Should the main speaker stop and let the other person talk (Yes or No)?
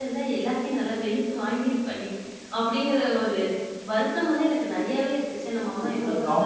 Yes